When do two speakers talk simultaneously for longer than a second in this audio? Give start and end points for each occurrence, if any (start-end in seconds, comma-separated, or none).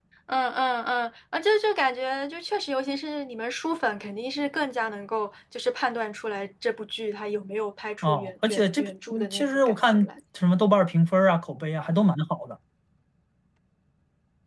8.0-10.1